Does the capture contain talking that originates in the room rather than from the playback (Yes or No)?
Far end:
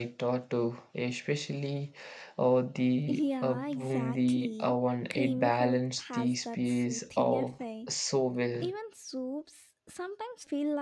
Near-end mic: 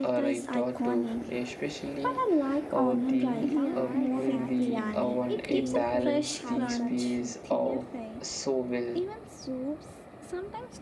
Yes